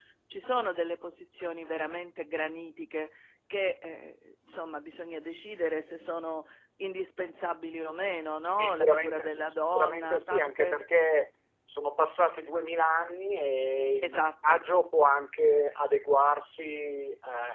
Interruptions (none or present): present